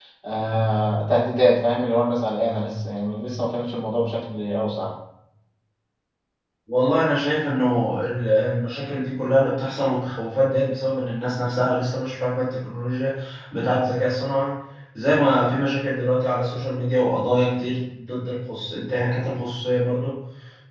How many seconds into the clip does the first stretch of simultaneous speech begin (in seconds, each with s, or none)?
none